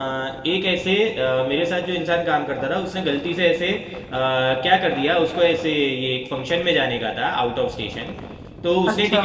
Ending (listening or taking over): listening